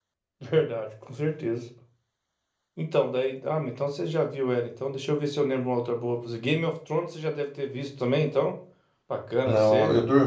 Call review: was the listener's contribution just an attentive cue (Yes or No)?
No